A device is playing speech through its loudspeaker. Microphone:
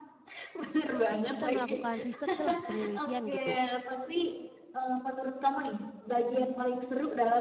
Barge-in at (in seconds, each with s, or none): 1.2 s